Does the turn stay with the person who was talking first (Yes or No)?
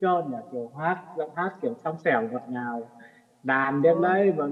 Yes